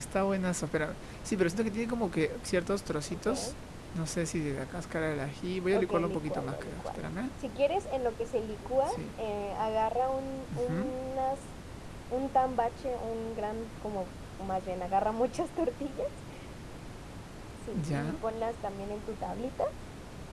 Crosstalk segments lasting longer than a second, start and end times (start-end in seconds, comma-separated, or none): 5.7-7.1